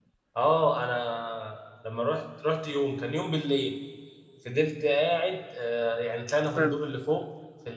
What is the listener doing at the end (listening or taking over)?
listening